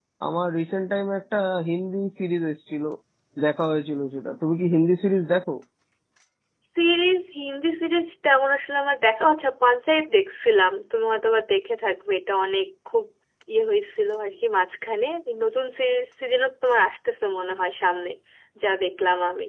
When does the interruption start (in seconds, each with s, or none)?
none